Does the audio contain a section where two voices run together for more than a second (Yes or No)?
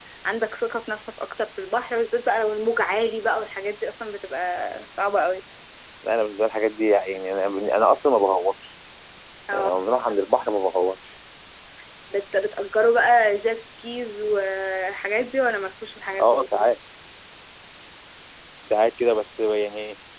No